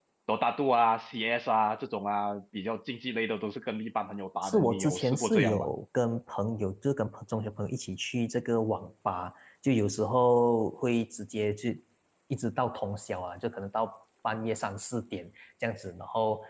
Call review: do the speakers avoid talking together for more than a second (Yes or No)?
No